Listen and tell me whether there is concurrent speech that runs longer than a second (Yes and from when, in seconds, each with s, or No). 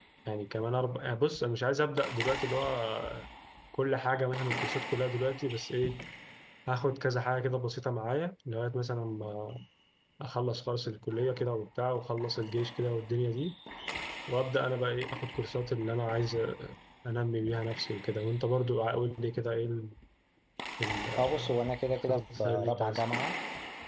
Yes, from 21.2 s